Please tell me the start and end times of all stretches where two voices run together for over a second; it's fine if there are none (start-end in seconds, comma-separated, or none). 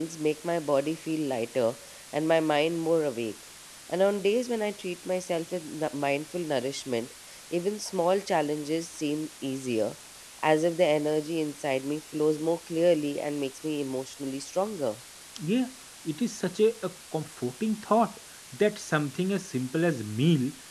none